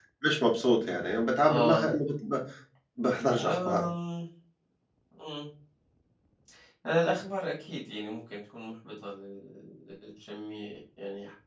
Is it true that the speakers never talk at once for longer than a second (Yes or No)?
Yes